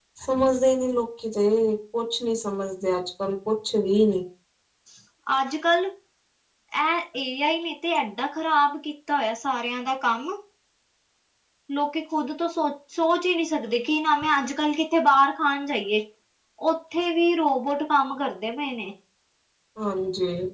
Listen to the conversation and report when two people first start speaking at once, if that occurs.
none

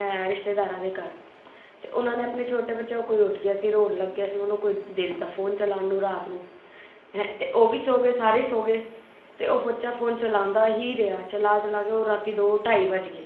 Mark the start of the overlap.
none

